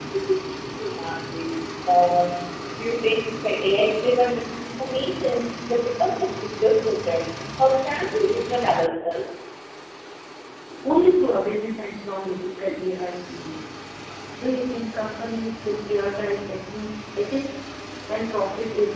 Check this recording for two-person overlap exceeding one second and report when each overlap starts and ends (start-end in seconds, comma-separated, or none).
none